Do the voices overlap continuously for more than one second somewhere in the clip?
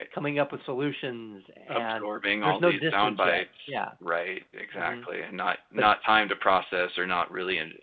Yes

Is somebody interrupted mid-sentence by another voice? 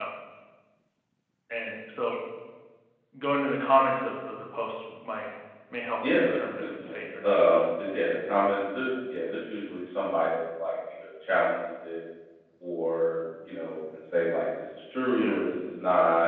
Yes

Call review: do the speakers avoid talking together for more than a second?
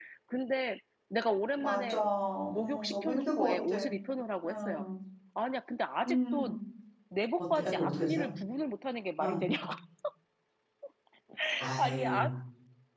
No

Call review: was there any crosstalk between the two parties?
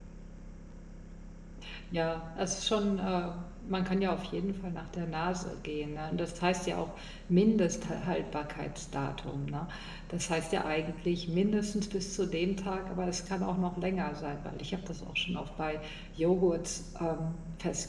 No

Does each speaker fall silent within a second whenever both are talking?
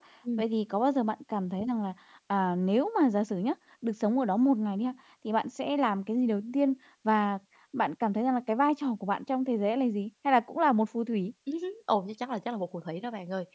Yes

